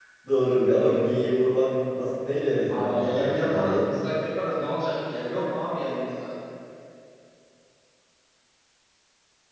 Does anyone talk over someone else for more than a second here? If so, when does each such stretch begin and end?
2.7-3.9

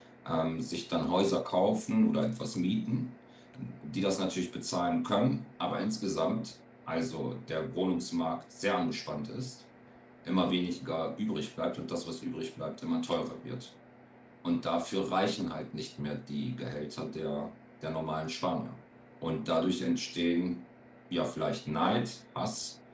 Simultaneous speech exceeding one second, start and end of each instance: none

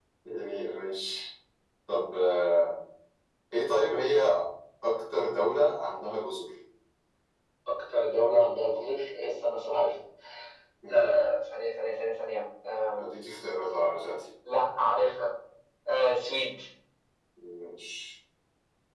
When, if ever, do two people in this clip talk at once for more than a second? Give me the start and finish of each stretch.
none

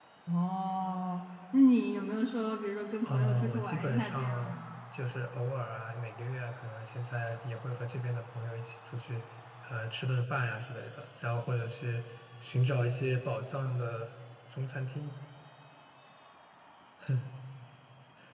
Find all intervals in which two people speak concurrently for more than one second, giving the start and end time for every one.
3.0-4.5

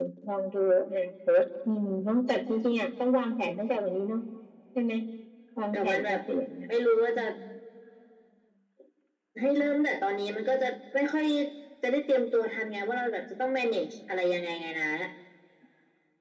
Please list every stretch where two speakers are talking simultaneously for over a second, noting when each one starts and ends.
none

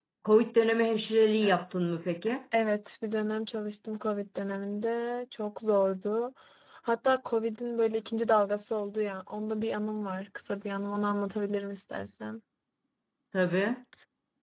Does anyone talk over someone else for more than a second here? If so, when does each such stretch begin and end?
none

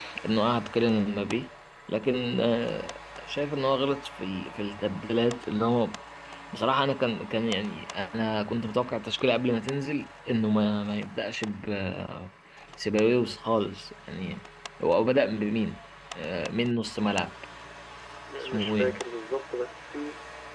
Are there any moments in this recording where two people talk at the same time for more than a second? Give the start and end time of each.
none

